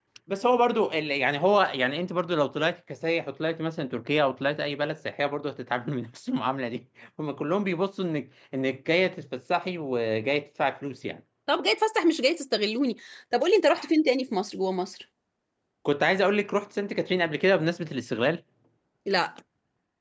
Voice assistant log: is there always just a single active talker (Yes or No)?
Yes